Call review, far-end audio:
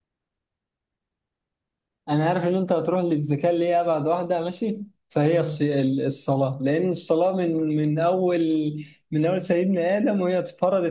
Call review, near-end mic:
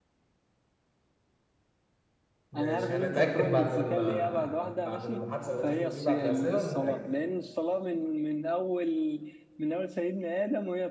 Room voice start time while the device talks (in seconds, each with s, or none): 2.5 s